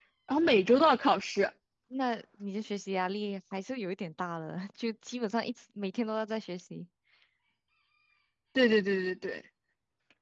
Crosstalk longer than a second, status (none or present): none